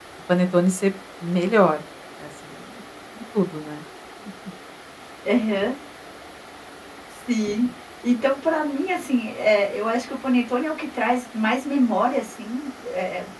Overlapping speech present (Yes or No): No